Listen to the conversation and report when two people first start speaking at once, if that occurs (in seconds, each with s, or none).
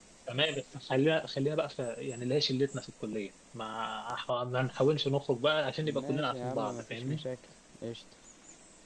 5.8 s